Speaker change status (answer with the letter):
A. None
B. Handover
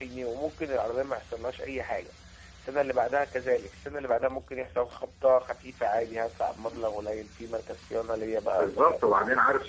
B